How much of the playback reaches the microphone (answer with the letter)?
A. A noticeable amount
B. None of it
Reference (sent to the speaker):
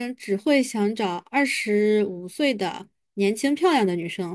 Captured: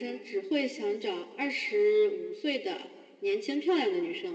A